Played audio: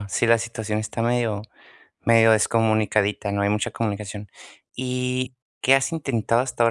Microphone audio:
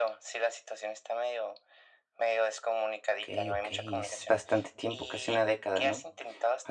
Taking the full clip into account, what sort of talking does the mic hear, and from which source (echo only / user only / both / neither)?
both